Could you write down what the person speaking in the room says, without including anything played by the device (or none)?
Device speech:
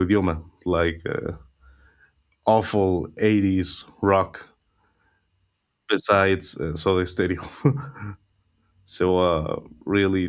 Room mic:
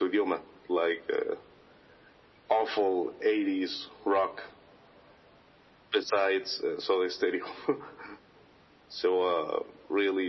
none